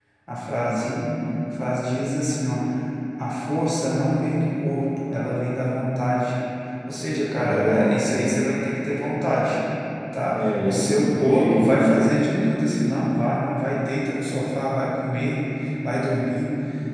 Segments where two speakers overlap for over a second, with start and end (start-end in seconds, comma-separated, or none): 10.3-11.9